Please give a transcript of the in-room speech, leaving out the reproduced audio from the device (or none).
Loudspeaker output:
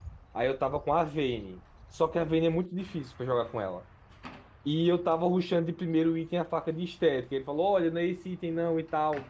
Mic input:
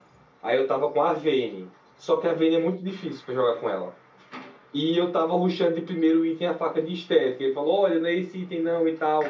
none